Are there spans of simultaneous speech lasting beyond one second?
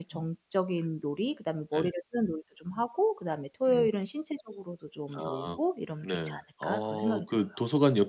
Yes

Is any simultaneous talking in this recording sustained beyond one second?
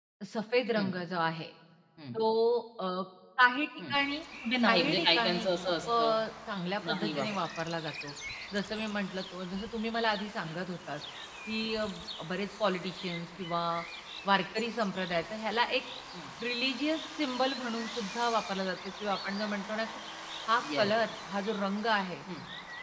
Yes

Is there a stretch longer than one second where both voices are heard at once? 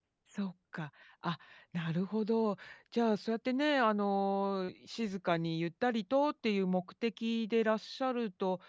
No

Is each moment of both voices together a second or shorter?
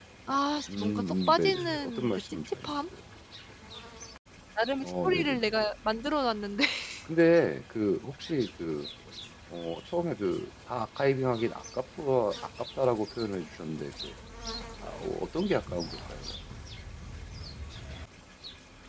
No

